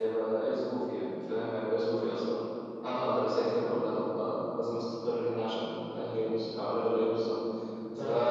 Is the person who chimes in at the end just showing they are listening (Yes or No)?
Yes